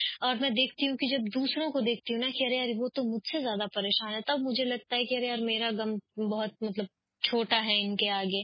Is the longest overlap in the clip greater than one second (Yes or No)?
No